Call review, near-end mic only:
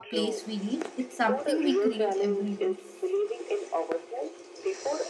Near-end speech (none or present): present